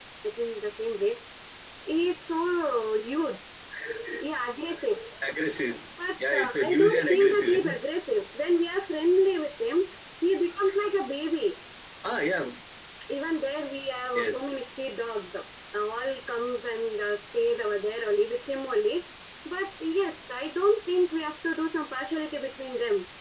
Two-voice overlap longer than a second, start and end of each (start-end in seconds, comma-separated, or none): 6.3-7.6